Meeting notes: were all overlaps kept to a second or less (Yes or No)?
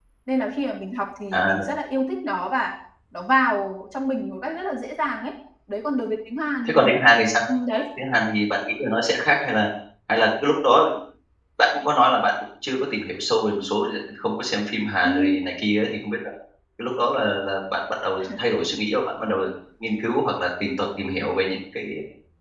Yes